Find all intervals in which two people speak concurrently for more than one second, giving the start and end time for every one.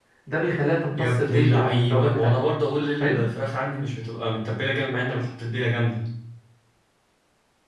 1.0-2.4

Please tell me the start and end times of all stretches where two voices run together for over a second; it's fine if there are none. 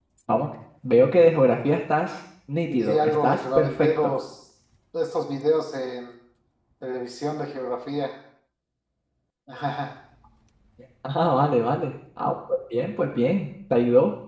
2.7-4.1

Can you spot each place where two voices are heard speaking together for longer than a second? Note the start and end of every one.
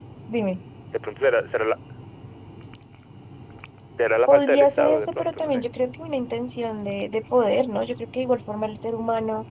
4.3-5.6

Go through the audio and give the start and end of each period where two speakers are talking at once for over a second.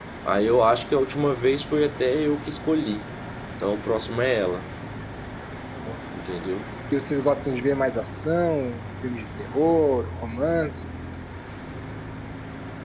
none

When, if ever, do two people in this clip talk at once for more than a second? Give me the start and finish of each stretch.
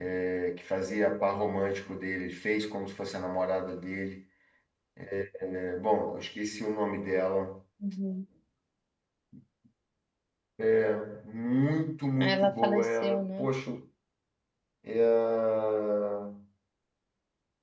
12.2-13.5

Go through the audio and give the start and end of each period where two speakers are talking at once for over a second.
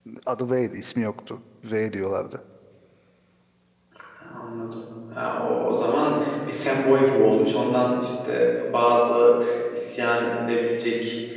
none

